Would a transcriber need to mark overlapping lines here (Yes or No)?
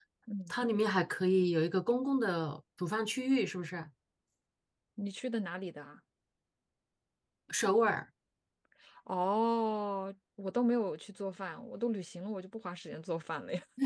No